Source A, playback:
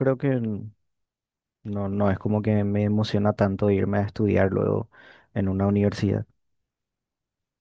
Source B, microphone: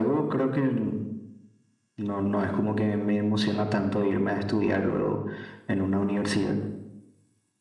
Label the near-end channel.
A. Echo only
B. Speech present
A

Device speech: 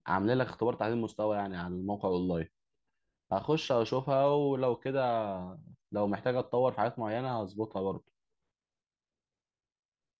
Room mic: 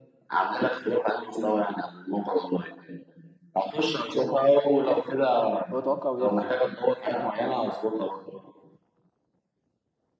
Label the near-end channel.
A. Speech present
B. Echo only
A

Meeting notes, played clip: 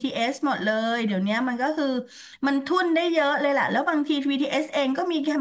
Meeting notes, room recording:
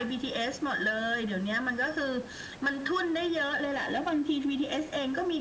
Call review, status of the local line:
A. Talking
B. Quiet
B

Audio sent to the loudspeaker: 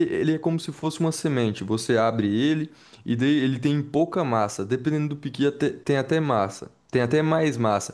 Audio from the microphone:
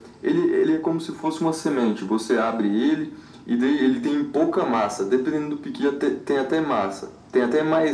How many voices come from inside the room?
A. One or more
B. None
B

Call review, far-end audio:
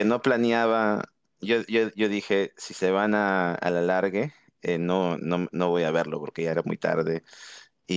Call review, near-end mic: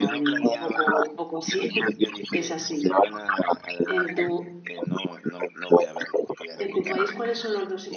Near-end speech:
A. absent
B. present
B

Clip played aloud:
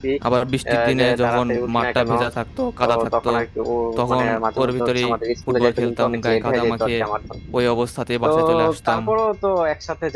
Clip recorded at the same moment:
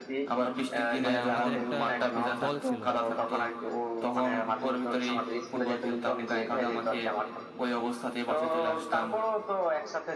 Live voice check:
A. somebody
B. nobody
A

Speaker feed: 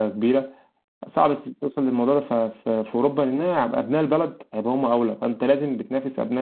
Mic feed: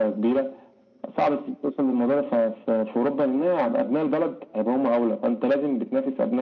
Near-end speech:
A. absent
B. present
A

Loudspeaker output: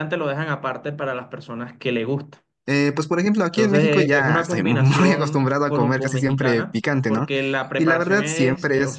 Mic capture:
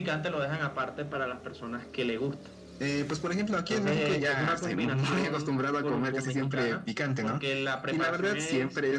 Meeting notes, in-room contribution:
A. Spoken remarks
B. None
B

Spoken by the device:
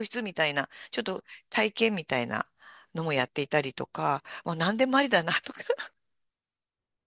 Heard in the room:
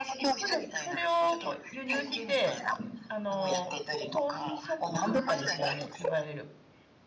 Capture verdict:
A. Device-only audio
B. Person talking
B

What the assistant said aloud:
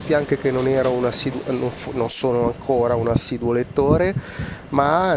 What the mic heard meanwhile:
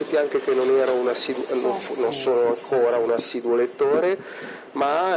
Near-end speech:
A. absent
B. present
B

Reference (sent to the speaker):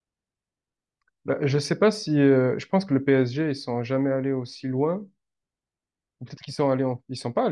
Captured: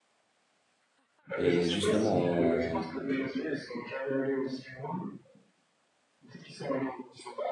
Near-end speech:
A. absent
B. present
B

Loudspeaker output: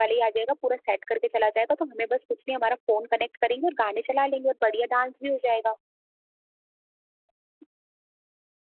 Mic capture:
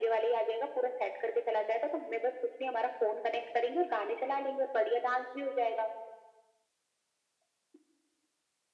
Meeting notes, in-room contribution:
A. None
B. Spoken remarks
A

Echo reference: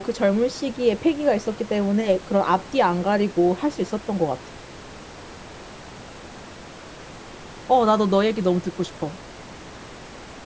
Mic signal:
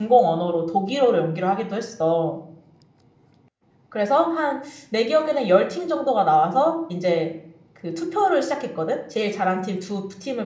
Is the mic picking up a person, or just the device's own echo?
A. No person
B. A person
B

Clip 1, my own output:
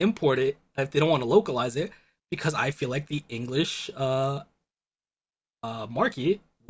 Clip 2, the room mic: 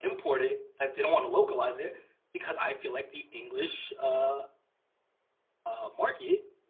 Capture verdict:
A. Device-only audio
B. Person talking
A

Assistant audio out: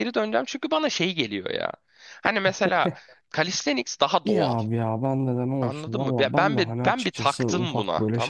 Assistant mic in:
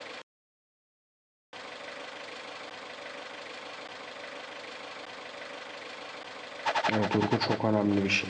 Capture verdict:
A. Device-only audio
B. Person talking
B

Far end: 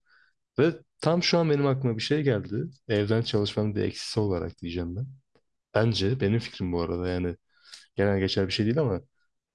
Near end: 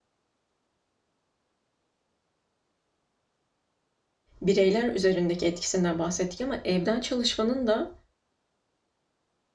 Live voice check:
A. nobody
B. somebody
B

